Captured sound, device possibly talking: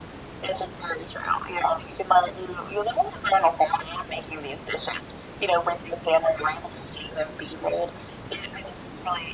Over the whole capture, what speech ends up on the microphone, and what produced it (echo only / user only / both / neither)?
echo only